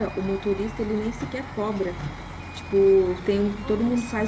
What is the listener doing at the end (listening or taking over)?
listening